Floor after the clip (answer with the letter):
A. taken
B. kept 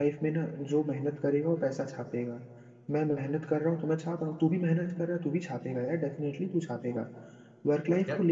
B